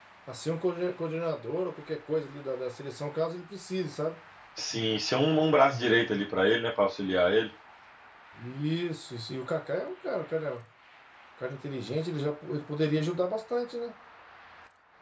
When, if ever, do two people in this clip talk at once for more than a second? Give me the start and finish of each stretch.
none

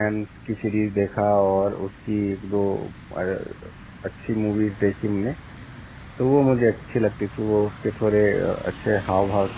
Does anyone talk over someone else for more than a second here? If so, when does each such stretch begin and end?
none

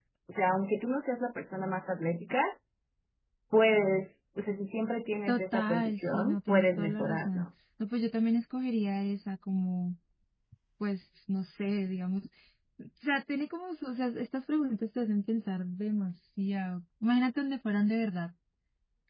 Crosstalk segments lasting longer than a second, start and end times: 5.3-7.5

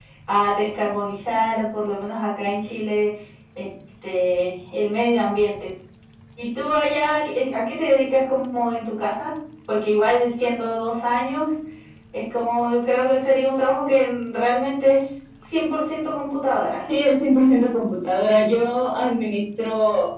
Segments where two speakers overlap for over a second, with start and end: none

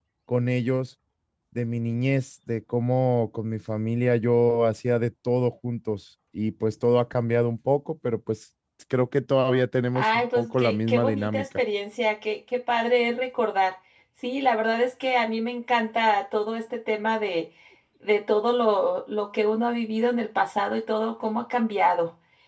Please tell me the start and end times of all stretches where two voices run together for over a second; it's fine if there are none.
9.9-11.4

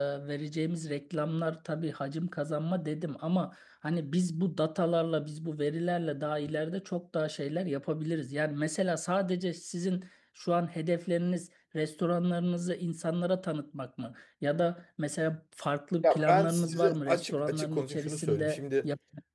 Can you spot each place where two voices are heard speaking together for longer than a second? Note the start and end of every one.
16.0-18.9

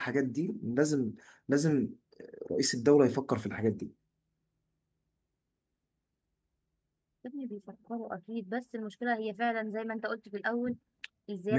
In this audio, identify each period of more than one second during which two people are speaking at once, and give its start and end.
none

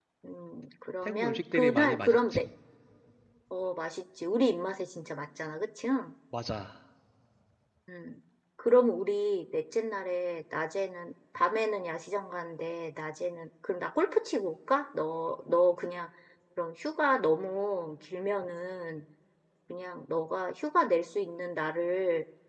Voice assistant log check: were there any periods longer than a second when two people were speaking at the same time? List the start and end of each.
1.1-2.4

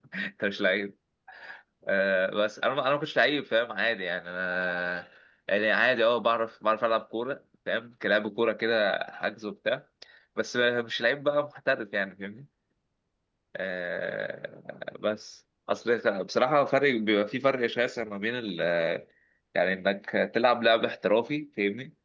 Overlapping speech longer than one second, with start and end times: none

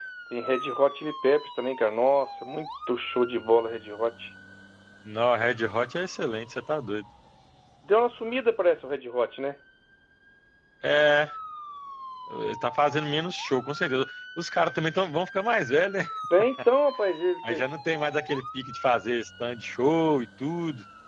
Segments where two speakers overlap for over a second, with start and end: none

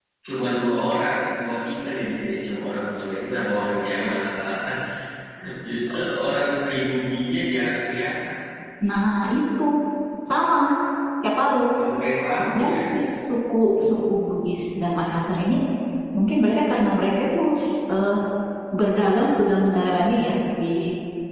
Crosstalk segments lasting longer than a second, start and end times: none

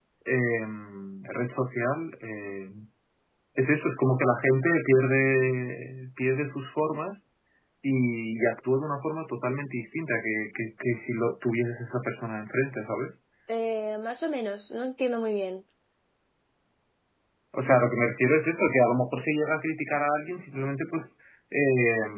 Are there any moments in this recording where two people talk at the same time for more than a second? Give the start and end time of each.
none

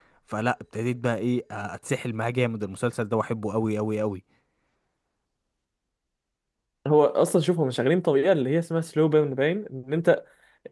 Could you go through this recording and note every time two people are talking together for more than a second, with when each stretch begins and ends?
none

